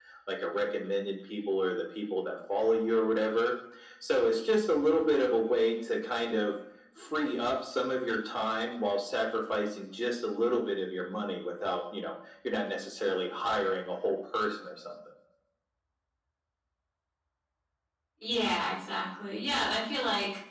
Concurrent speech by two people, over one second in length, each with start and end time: none

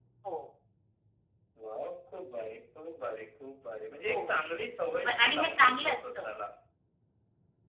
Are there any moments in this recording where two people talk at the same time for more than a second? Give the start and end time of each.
5.0-6.3

